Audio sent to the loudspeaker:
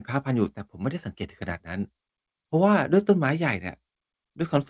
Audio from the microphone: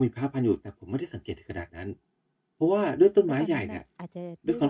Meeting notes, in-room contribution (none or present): present